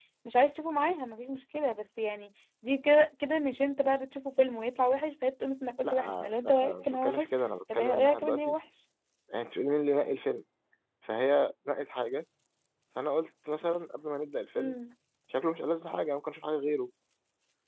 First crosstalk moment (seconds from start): 5.8 s

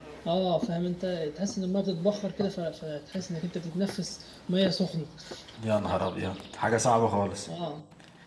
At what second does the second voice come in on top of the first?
none

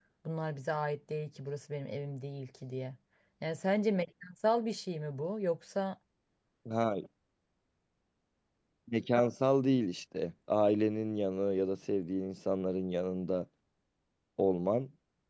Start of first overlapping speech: none

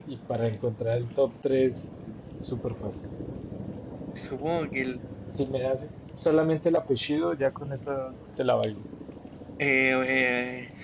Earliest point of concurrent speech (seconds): none

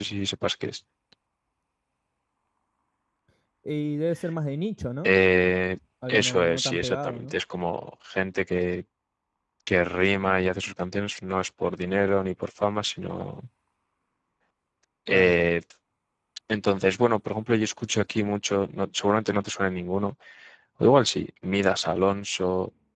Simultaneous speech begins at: 6.1 s

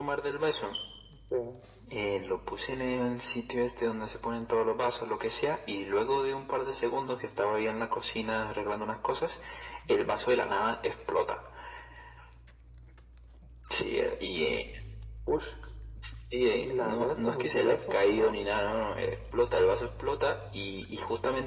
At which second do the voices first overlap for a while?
16.6 s

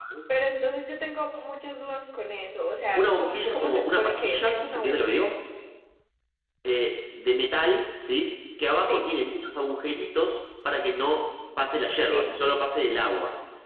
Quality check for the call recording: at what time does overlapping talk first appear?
2.9 s

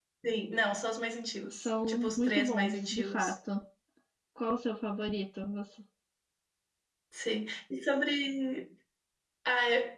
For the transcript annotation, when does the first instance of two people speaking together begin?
1.6 s

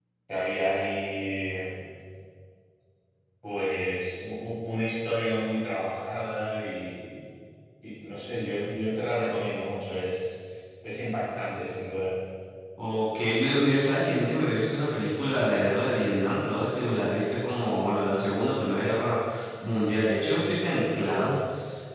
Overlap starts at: none

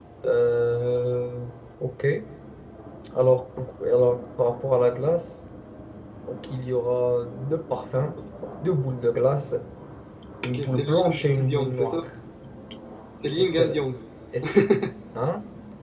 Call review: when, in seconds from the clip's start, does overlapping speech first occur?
10.5 s

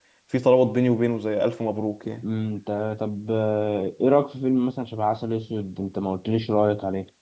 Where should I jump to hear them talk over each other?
none

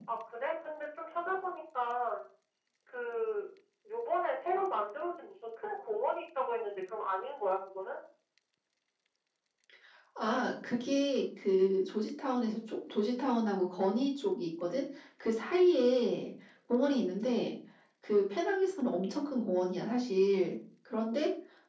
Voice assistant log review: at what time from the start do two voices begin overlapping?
none

